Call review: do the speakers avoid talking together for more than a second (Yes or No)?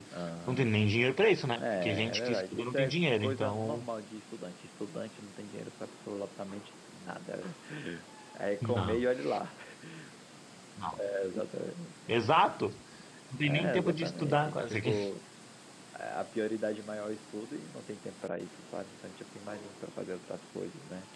No